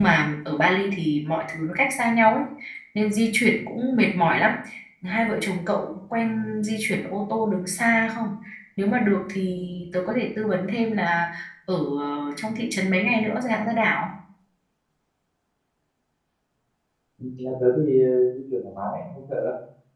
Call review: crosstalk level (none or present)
none